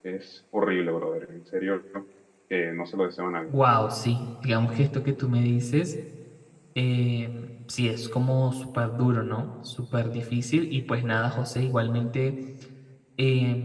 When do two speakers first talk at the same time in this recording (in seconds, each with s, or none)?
none